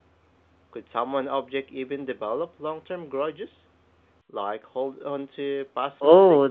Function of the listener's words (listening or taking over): taking over